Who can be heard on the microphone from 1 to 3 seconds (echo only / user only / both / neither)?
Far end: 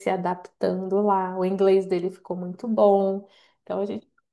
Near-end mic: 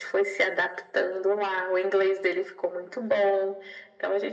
echo only